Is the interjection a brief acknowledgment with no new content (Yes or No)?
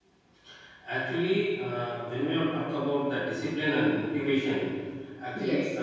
Yes